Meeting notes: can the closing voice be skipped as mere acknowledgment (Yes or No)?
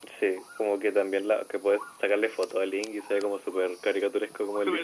No